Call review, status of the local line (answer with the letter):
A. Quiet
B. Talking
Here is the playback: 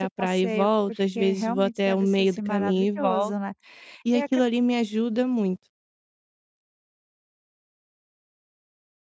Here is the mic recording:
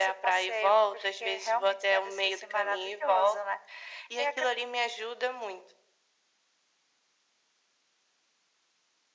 A